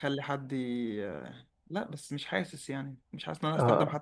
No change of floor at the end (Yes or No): Yes